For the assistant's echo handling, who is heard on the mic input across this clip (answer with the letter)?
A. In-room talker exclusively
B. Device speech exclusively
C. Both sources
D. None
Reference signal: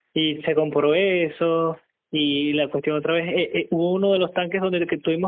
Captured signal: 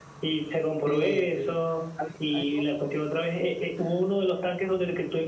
C